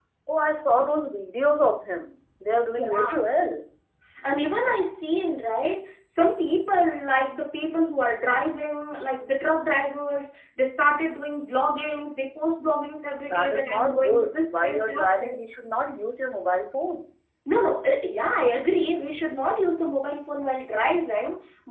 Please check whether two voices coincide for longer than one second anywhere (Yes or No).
Yes